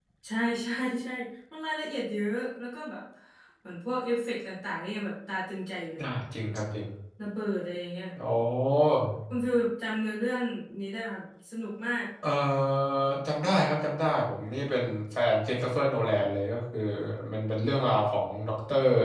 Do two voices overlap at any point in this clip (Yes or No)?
No